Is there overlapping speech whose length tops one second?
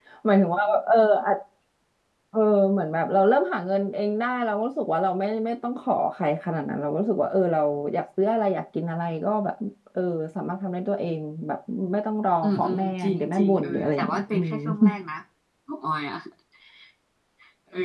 Yes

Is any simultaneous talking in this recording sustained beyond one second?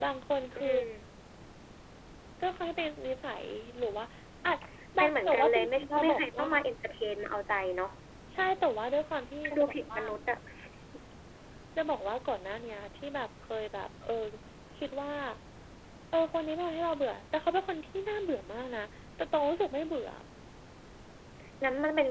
Yes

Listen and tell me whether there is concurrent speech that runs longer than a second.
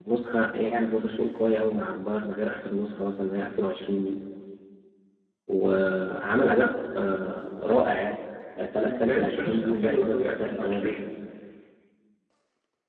Yes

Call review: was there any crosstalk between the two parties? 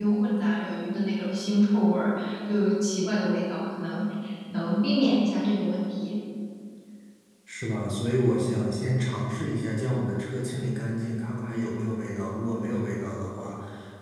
No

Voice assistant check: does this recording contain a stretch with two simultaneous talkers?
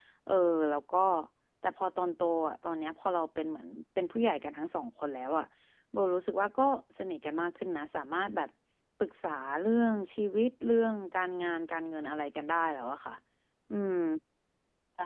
No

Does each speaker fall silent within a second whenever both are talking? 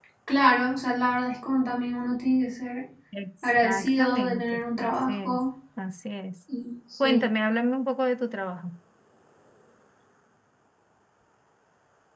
No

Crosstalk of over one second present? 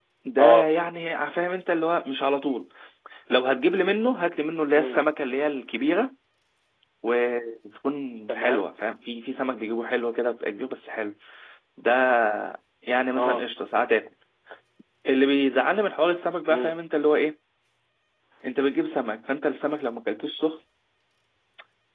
No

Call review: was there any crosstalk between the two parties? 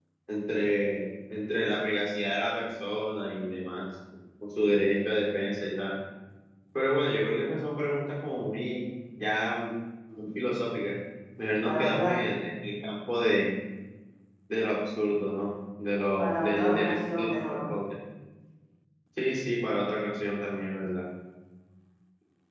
Yes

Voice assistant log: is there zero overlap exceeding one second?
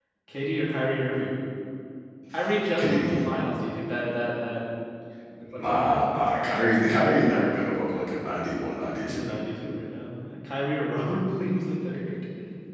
Yes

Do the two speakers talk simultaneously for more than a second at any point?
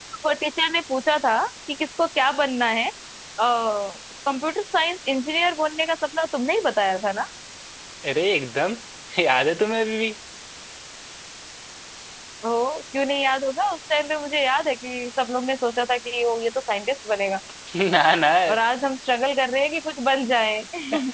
No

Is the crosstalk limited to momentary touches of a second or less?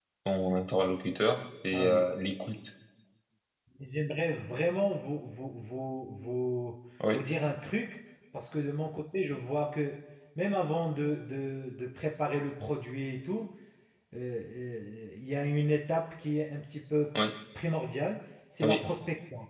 Yes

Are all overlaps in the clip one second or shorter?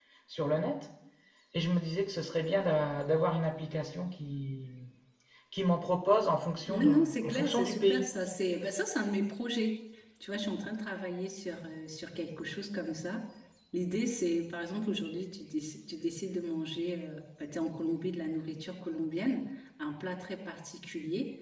No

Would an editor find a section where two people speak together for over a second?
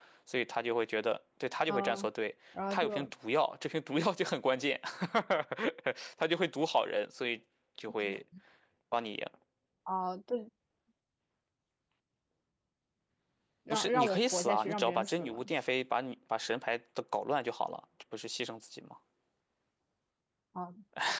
Yes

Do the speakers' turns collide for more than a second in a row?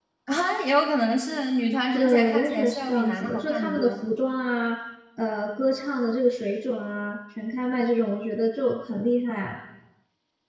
Yes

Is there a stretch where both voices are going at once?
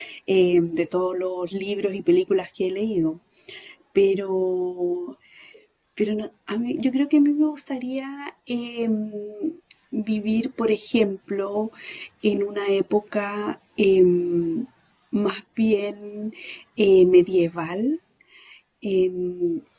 No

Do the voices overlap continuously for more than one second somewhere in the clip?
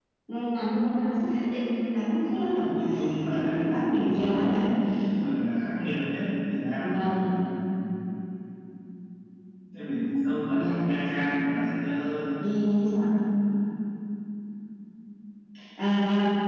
Yes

